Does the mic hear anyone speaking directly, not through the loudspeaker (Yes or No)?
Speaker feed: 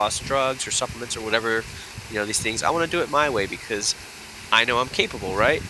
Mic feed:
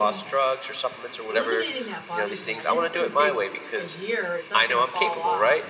Yes